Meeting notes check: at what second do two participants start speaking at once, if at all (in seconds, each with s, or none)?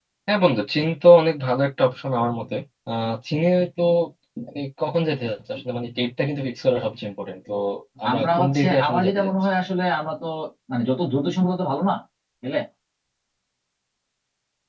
8.1 s